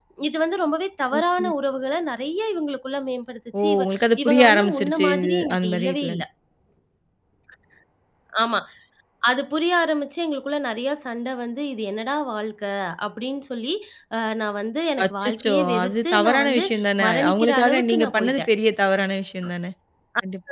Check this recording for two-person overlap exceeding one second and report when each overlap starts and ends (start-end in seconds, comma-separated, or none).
4.2-6.2, 15.0-16.6, 17.1-18.5